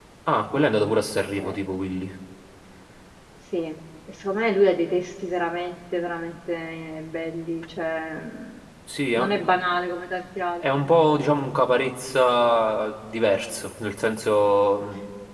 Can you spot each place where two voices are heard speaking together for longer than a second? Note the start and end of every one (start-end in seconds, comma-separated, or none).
none